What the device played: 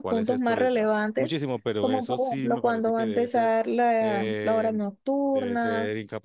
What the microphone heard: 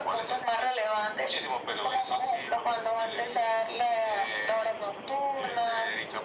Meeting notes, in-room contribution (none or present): none